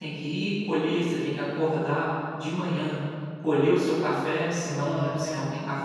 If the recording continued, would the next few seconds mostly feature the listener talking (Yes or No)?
No